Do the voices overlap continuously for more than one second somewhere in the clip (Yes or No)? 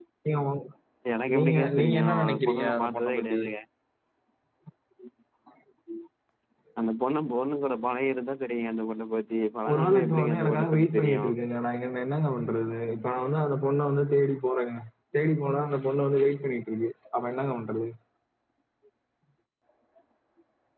Yes